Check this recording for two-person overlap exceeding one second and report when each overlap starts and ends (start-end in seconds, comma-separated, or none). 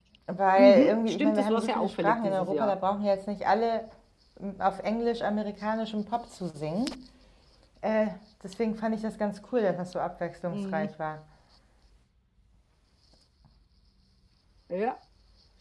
0.6-2.7